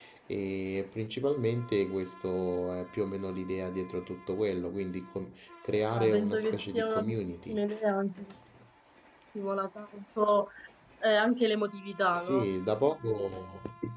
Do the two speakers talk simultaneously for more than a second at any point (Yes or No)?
Yes